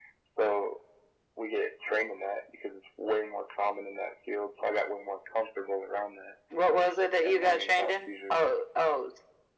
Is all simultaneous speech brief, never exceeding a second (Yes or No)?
No